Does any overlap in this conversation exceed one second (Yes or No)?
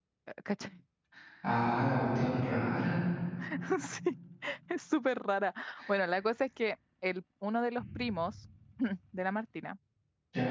No